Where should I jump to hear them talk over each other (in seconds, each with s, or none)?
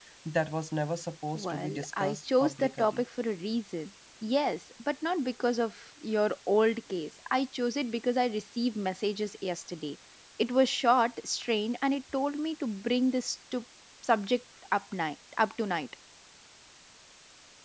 1.4 s